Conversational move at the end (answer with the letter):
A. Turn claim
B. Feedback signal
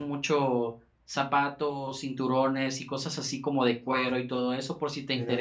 B